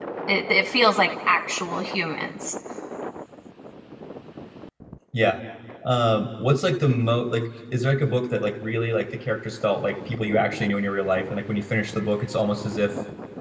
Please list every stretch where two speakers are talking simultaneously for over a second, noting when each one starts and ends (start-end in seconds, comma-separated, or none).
none